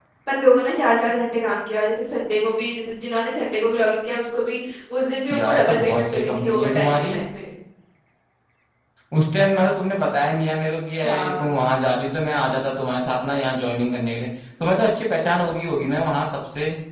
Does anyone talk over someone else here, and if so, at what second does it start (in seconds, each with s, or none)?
5.3 s